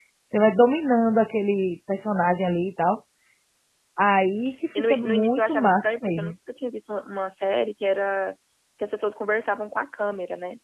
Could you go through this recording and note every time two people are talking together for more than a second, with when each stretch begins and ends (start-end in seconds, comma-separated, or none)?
4.8-6.3